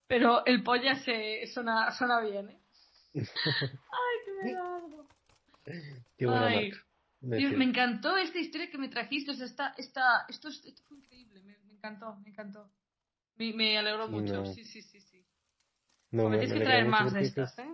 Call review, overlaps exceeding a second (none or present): present